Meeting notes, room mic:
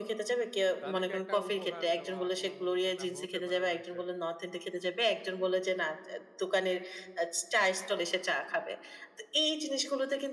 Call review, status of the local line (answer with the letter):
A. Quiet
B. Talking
B